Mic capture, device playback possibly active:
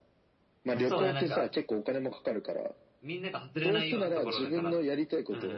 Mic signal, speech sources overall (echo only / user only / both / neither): both